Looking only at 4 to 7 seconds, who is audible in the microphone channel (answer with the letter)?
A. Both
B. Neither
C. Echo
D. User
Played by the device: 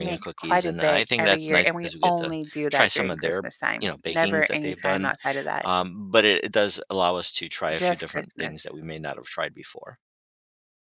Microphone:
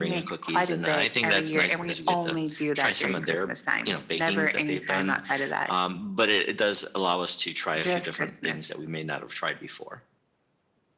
C